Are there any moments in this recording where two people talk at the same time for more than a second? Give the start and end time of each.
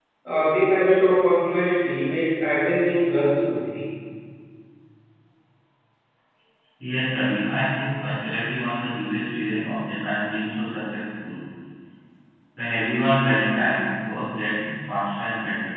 none

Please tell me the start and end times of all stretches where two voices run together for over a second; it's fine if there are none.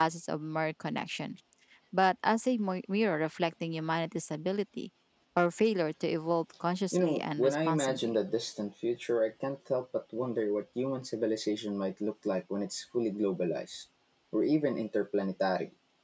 6.9-8.2

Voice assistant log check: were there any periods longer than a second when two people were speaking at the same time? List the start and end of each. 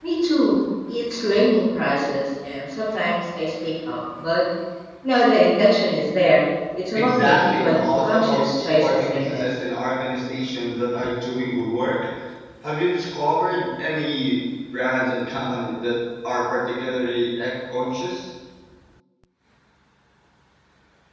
7.0-9.4

